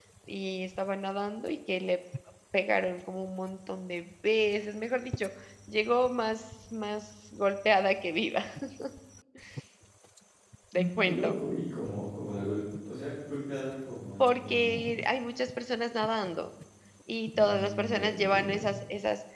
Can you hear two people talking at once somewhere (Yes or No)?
Yes